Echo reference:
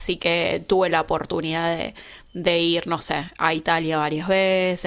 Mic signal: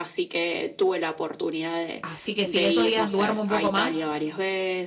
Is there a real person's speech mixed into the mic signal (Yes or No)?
Yes